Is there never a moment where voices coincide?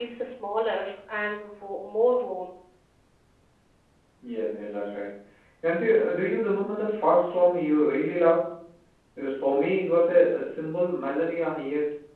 Yes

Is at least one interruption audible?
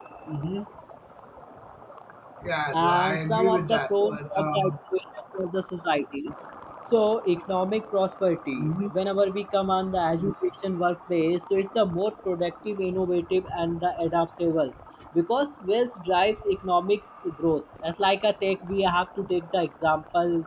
Yes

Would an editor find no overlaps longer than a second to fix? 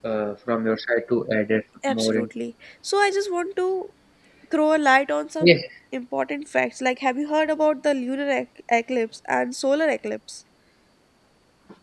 Yes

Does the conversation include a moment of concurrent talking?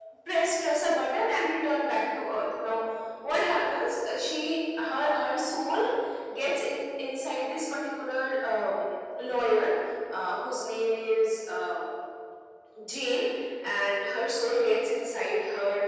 No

